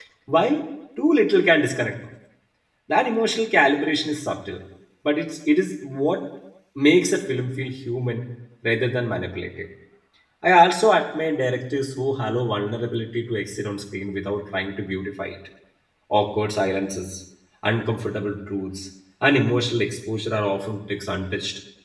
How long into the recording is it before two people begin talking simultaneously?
none

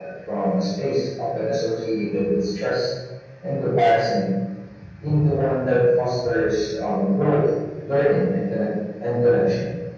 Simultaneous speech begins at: none

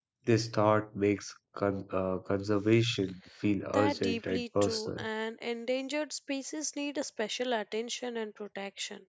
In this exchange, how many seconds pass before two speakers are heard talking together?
3.7 s

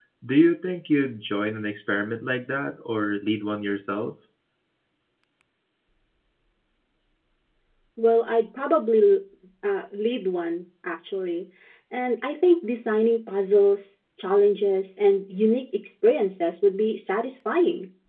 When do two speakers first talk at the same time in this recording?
none

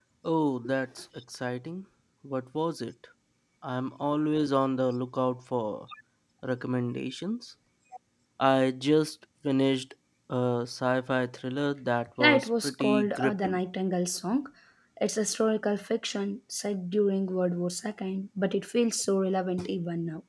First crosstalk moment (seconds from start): 12.2 s

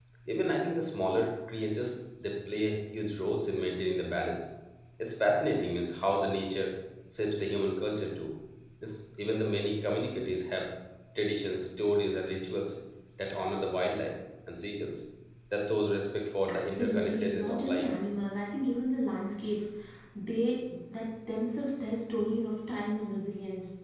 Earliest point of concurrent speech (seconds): 16.5 s

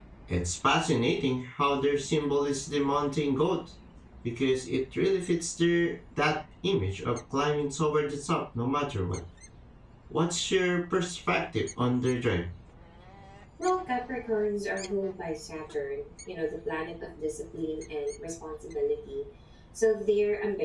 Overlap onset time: none

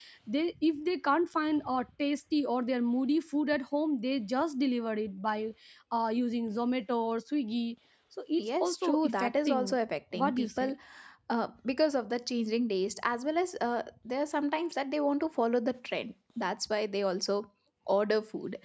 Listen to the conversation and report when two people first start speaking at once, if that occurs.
8.4 s

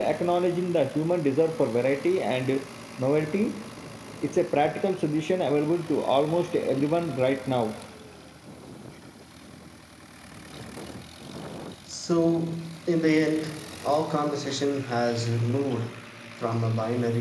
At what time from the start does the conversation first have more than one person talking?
none

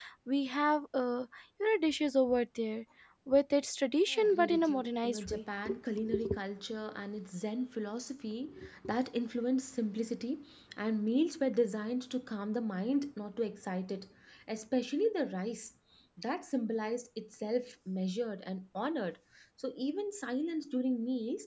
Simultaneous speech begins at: 4.1 s

